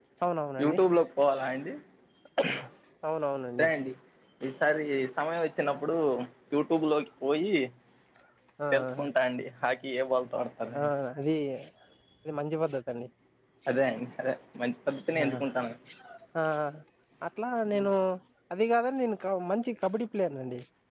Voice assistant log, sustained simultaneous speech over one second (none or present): none